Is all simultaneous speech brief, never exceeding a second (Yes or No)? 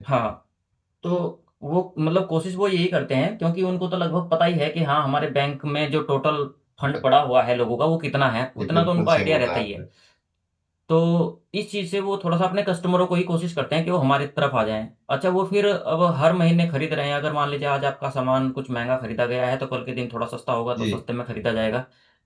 No